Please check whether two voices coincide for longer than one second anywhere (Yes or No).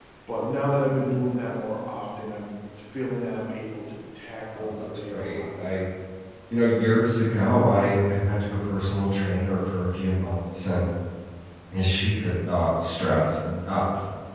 Yes